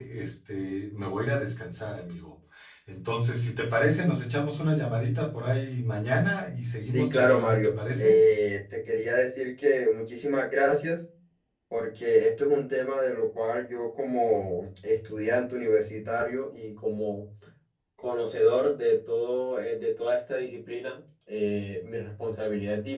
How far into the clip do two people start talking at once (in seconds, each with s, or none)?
6.8 s